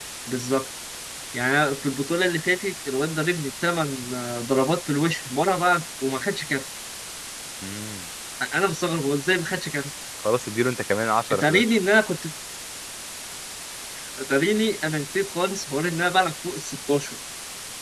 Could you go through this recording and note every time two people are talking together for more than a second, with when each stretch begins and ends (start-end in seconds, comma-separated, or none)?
none